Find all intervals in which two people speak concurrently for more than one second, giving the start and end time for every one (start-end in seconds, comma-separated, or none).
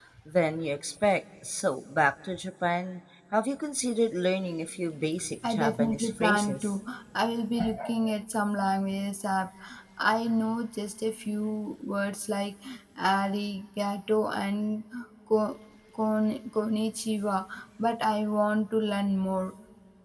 5.4-6.8